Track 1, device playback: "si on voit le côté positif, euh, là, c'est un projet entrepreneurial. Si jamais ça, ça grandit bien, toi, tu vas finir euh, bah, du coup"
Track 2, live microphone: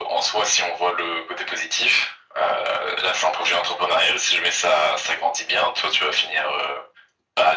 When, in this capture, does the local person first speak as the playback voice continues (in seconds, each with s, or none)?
none